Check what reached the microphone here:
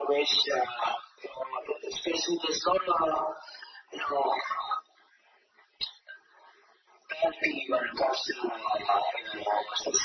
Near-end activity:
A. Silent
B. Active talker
A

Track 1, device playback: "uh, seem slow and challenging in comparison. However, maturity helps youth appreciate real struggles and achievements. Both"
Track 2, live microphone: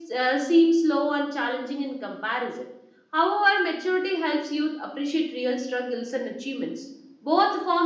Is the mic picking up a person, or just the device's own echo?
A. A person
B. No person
B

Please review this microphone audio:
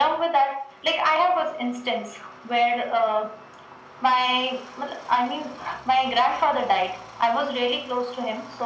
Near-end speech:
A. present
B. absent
B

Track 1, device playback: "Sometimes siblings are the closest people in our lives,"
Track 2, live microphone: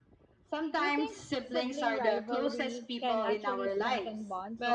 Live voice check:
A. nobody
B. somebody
B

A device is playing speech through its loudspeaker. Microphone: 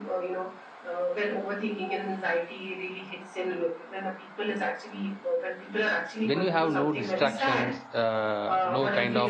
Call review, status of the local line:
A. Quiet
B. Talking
B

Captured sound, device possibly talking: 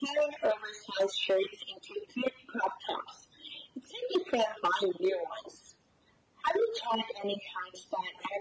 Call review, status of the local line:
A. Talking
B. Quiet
B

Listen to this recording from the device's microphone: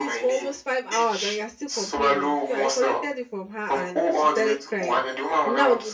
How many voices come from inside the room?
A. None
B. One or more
B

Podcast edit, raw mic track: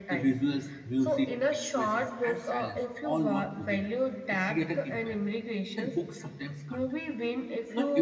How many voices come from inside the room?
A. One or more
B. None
A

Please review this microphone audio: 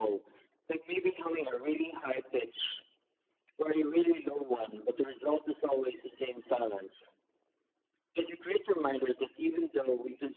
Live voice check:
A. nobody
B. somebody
A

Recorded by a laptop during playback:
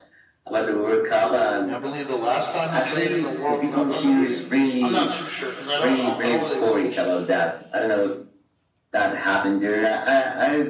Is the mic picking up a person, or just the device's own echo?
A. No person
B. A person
B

